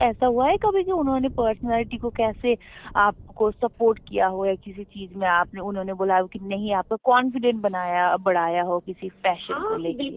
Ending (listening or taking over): taking over